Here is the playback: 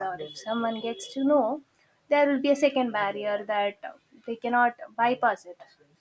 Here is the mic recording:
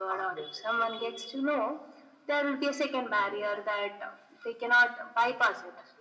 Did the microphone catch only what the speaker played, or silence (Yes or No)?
Yes